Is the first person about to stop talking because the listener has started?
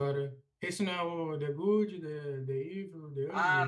Yes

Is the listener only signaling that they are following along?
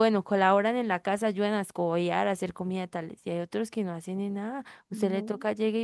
Yes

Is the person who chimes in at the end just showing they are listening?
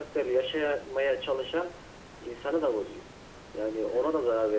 Yes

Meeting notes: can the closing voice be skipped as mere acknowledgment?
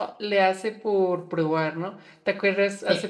Yes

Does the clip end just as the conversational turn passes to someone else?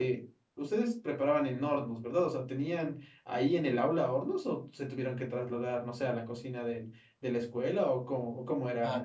Yes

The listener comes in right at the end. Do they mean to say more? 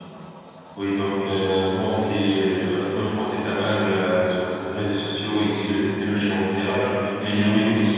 No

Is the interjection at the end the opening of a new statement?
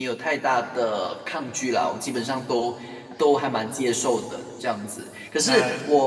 No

